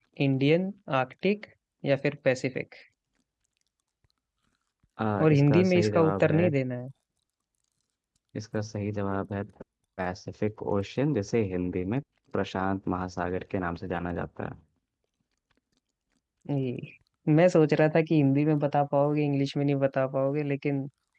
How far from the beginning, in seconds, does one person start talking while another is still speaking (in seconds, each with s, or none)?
5.2 s